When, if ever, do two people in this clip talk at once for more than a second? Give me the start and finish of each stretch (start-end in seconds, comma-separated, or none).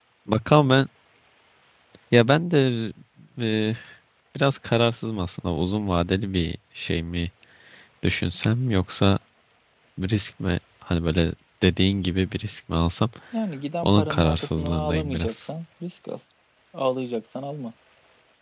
13.8-15.5